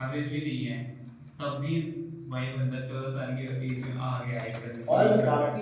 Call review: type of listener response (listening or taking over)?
taking over